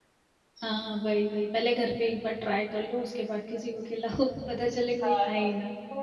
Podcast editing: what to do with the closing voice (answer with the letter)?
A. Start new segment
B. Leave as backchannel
A